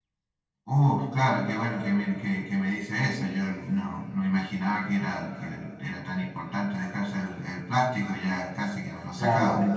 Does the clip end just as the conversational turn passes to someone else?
Yes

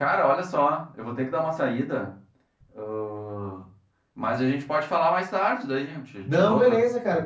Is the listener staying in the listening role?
No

